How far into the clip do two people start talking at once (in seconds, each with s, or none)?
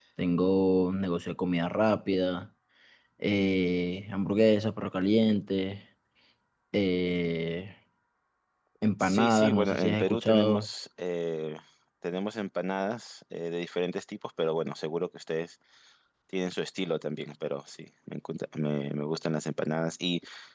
9.0 s